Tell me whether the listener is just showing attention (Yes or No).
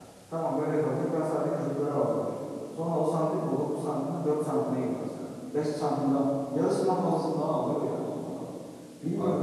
Yes